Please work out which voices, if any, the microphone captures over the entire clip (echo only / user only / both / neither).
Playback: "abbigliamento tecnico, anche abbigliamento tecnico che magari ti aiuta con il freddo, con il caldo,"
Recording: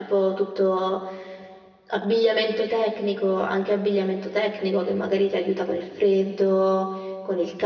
echo only